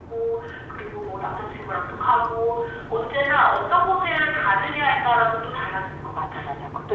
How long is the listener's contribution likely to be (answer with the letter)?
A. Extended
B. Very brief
A